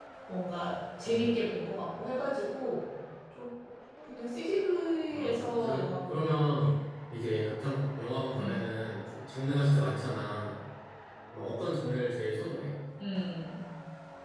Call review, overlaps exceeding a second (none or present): present